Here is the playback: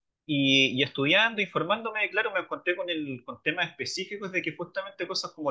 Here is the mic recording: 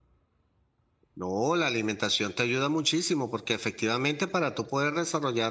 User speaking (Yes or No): Yes